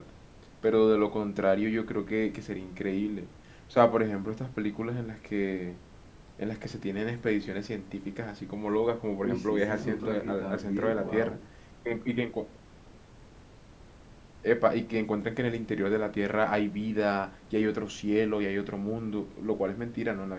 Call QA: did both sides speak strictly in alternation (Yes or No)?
No